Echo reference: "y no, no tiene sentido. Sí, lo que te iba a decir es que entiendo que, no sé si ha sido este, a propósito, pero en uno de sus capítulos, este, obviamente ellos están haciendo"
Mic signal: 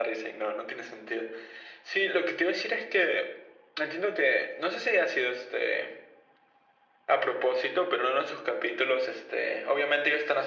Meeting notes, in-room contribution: none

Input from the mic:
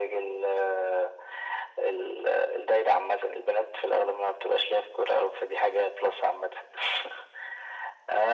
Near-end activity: none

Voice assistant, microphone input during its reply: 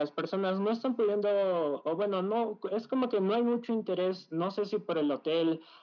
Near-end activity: none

